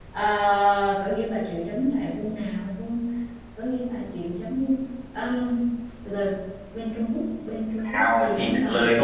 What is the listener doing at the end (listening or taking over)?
taking over